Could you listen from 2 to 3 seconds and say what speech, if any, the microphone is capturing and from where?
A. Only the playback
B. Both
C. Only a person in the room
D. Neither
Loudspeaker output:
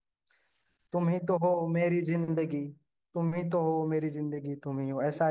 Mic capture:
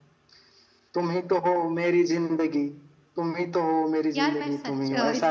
A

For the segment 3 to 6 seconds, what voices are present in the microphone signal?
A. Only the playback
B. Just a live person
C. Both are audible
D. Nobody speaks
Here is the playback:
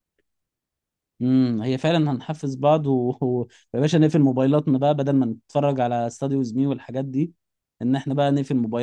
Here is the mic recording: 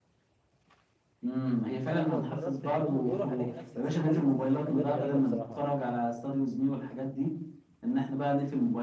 C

